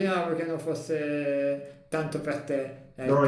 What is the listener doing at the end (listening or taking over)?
taking over